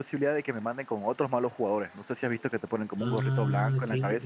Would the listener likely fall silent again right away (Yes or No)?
No